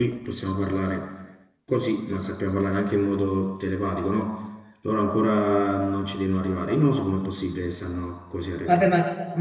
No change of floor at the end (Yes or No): No